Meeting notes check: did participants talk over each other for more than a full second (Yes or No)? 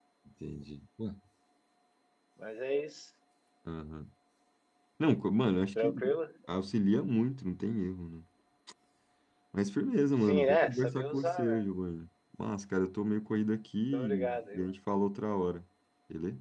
Yes